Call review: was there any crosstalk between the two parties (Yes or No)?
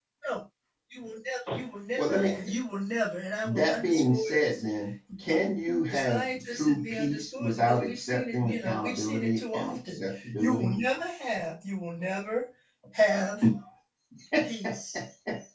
Yes